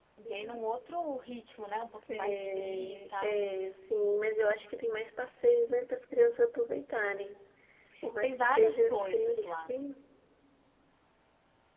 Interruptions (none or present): present